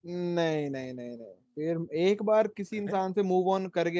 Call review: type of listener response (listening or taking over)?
listening